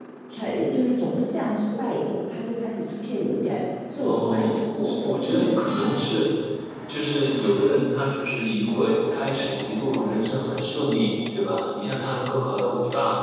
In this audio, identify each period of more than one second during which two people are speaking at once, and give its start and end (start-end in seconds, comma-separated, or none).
4.0-6.1